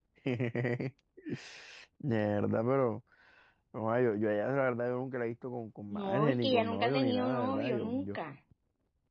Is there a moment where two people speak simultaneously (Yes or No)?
Yes